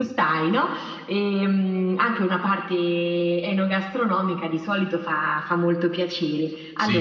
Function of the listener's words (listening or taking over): listening